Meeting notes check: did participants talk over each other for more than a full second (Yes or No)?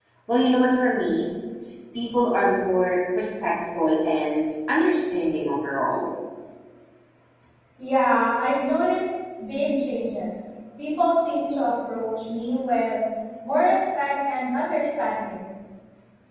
No